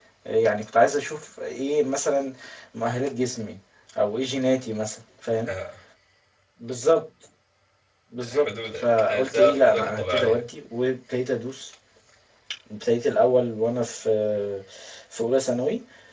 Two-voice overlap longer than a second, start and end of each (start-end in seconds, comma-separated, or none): 8.3-10.4